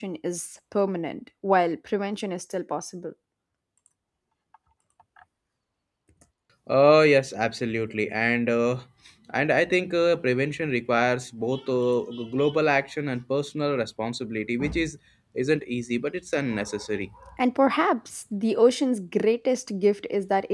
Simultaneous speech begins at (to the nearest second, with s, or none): none